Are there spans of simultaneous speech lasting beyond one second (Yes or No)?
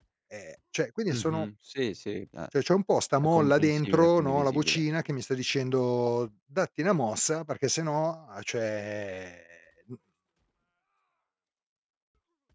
Yes